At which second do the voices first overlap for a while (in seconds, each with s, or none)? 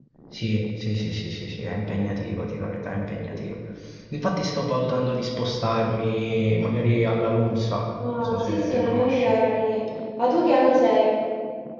8.0 s